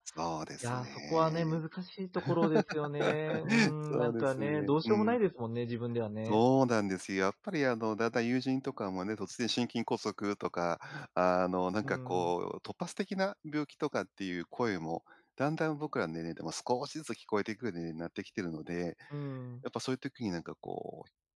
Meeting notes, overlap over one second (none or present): present